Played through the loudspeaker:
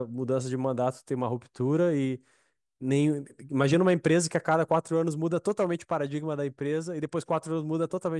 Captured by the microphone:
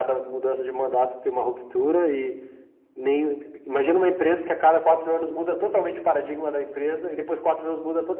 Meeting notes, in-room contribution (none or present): none